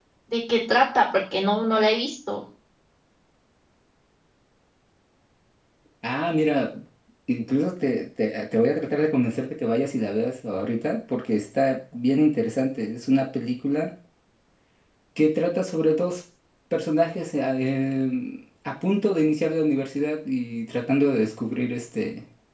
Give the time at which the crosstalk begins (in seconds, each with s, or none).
none